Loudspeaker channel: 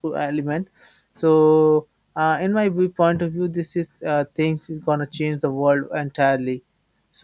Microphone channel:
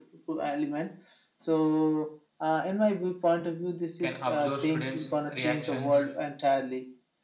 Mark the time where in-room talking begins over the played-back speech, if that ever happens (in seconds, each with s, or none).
4.0 s